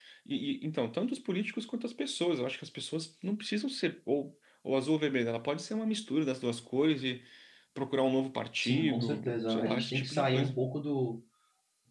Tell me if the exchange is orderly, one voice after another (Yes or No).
No